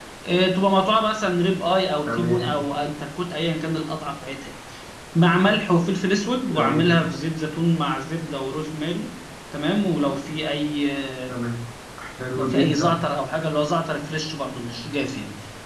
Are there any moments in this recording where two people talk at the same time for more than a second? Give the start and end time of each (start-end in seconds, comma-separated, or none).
none